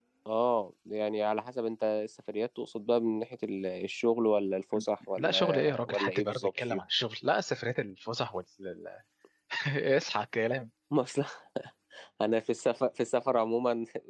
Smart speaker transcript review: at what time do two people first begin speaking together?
5 s

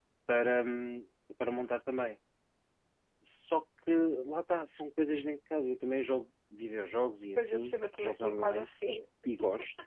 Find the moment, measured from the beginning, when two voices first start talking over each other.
7 s

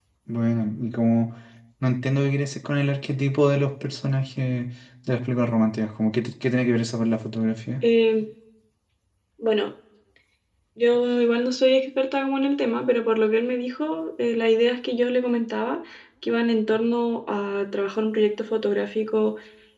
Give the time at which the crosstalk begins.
none

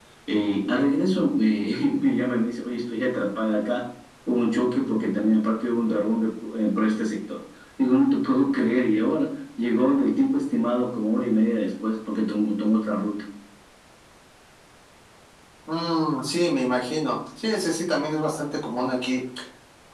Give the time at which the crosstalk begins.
none

